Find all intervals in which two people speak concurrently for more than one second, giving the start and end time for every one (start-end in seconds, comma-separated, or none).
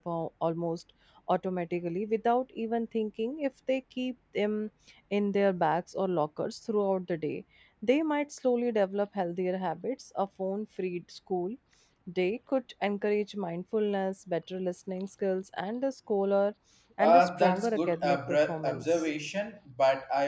17.0-19.1